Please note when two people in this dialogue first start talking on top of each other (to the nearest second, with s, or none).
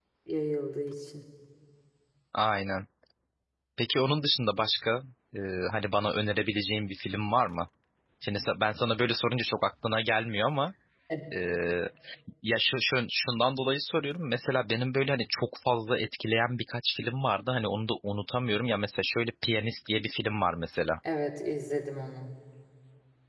none